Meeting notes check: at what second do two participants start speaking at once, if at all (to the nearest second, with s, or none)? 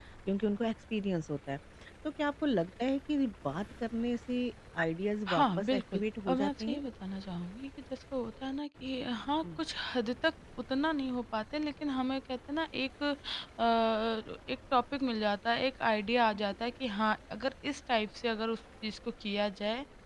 5 s